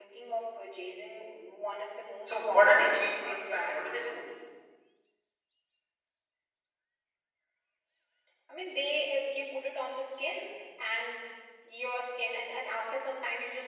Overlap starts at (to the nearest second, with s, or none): 2 s